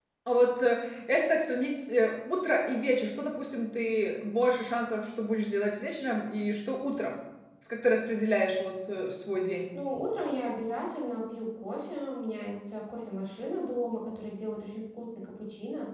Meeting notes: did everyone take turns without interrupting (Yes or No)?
Yes